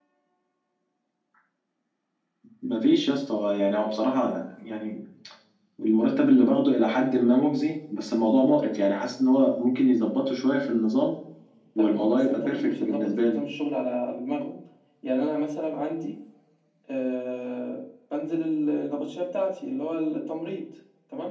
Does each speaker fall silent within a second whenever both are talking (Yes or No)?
No